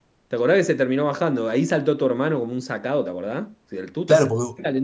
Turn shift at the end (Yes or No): Yes